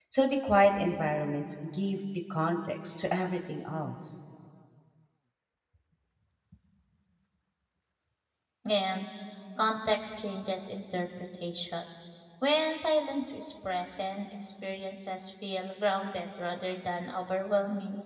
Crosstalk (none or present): none